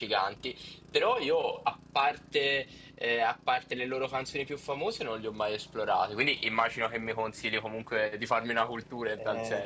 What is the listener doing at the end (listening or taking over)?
taking over